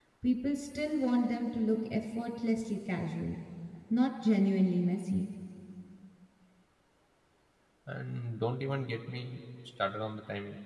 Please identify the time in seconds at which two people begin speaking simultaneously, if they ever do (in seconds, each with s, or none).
none